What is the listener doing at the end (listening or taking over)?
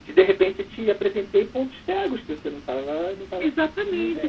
taking over